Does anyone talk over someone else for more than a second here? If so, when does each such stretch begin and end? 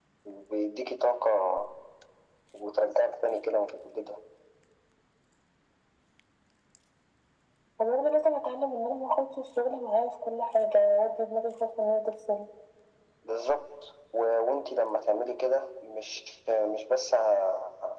none

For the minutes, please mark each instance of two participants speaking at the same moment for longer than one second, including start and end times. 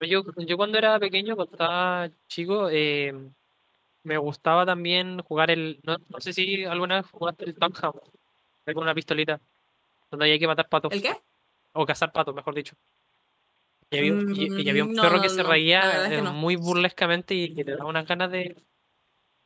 14.0-16.4

